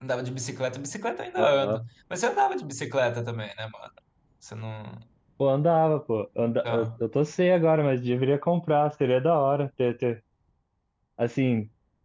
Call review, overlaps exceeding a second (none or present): none